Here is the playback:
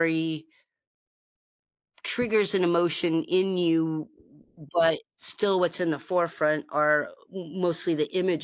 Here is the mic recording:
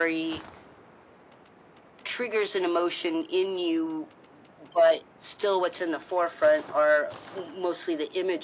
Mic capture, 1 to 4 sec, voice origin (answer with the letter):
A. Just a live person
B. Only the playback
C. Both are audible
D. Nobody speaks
B